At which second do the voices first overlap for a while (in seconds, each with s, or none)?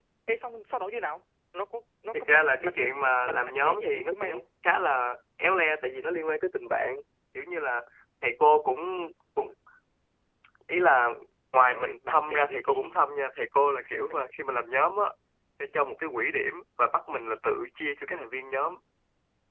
2.2 s